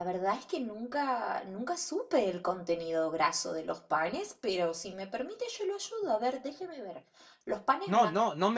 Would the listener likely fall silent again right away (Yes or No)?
No